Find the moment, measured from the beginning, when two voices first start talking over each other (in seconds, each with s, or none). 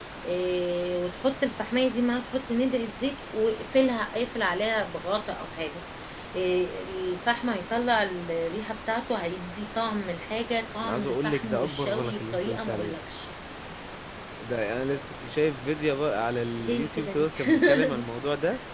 10.8 s